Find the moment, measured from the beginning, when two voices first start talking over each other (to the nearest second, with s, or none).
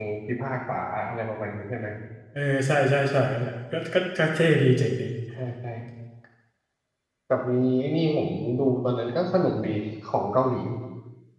none